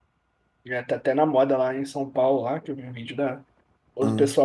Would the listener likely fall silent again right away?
Yes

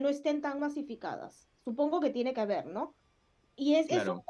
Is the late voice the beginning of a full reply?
No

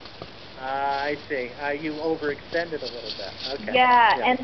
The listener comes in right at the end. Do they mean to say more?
Yes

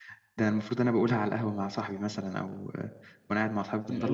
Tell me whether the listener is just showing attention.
No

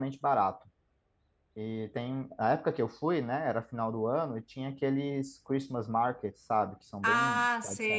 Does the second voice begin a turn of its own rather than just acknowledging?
Yes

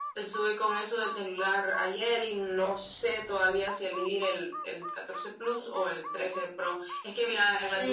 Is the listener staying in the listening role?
No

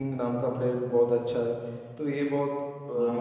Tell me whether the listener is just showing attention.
Yes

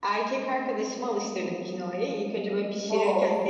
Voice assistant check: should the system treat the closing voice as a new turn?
No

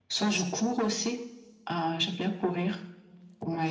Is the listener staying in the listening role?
No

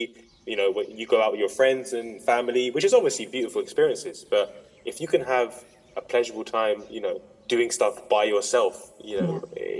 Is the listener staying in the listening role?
Yes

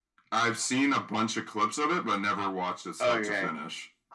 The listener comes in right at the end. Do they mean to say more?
Yes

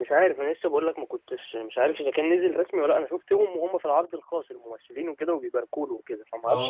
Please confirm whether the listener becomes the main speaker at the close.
Yes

